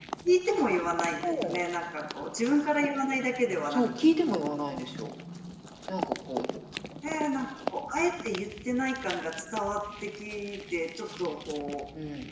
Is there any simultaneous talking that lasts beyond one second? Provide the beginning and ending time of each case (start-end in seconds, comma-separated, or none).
none